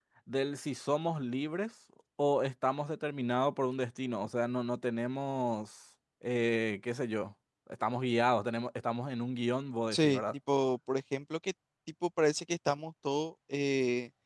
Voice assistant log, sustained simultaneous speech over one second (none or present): none